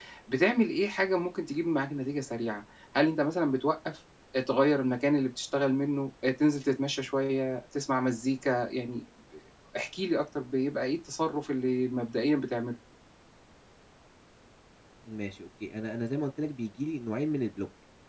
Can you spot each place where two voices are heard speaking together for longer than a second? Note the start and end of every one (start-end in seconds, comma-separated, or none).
none